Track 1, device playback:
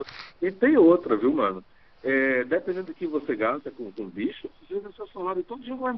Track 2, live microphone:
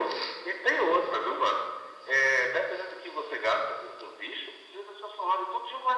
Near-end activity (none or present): none